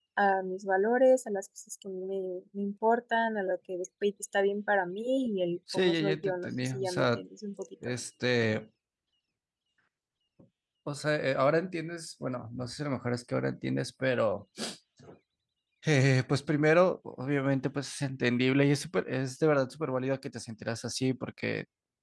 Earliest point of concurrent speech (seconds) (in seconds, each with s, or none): 5.7 s